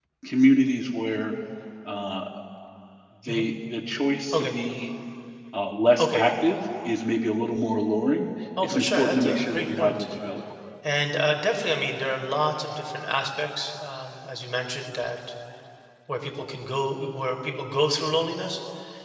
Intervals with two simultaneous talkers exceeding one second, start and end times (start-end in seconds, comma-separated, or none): 8.6-10.0